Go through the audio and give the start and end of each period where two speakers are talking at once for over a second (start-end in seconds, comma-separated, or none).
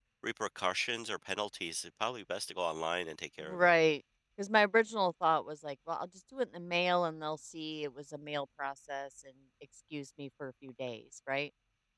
none